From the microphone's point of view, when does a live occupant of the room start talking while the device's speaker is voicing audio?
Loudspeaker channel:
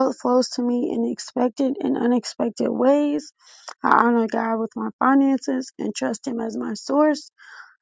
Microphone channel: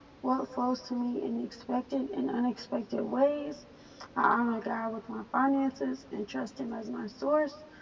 none

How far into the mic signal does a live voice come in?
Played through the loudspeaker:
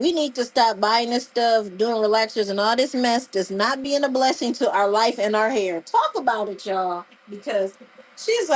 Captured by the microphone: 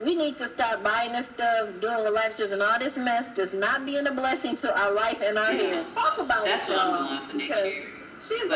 5.4 s

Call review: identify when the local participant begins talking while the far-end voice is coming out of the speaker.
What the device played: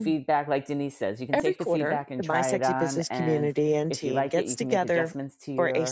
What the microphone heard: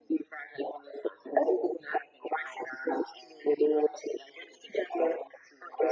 none

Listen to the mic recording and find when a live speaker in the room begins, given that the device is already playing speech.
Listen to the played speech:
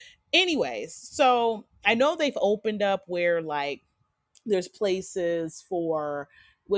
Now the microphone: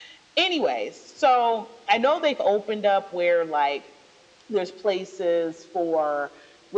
none

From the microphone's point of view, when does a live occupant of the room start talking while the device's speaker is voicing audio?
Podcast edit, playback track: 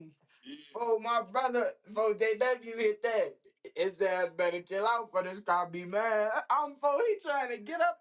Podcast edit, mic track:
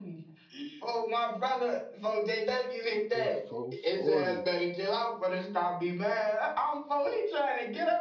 3.1 s

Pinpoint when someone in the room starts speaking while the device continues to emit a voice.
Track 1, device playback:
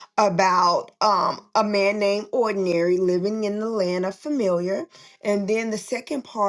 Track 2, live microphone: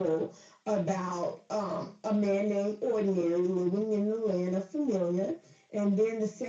none

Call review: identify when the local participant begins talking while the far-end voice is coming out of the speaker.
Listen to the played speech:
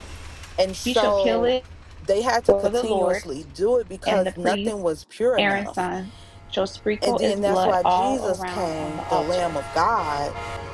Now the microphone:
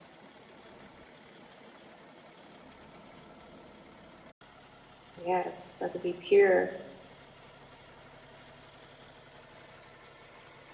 5.2 s

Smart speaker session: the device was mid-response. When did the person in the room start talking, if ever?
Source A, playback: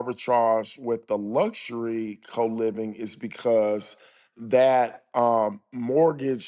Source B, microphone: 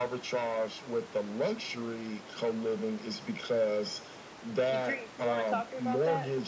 4.7 s

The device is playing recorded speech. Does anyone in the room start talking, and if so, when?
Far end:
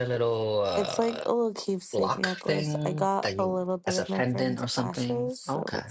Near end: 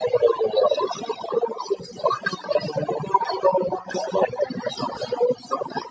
none

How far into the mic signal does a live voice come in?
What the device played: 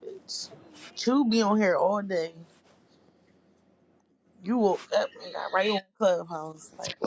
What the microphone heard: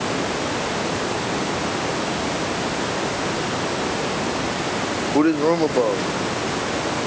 5.1 s

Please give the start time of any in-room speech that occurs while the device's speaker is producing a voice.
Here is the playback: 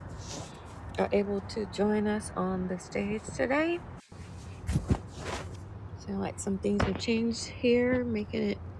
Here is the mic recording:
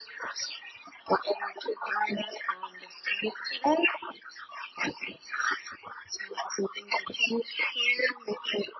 none

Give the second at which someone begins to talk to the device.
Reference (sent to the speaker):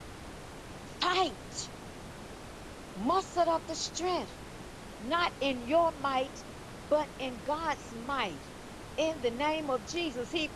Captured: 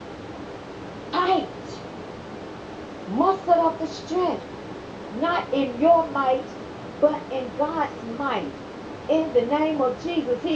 none

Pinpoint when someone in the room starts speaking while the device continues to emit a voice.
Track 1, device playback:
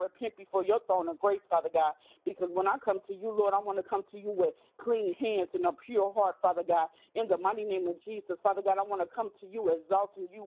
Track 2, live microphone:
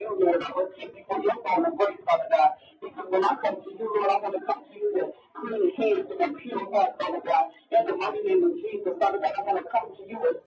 none

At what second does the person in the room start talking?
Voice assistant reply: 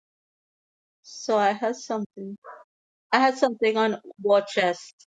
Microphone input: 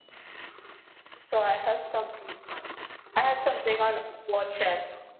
none

